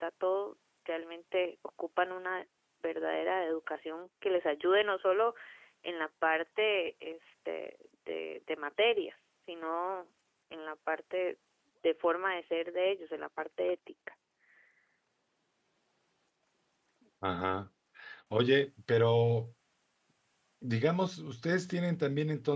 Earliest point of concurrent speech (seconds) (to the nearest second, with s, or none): none